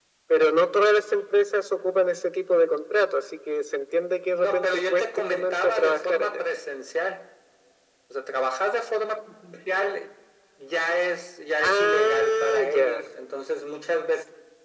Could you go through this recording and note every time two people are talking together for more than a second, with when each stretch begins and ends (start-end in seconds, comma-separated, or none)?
4.3-6.4, 11.6-13.0